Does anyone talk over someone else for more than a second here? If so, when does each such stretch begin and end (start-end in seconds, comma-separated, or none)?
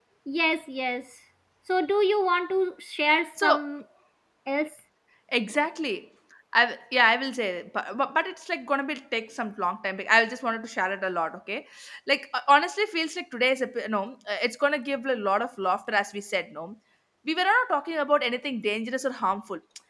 none